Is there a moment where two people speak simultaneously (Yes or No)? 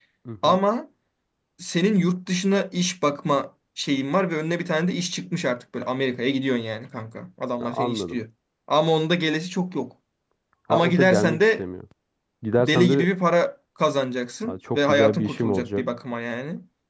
Yes